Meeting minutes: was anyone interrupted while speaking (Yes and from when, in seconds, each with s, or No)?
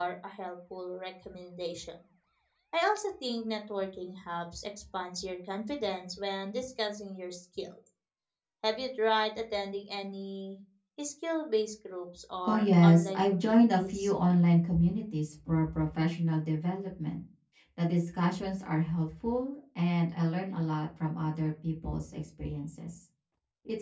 Yes, from 12.4 s